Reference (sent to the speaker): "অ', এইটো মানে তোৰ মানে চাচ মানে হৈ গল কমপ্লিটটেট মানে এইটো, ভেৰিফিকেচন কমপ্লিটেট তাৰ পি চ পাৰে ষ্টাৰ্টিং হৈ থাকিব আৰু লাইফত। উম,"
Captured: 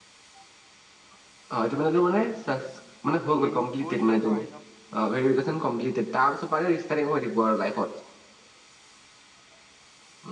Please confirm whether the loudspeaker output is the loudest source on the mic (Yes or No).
Yes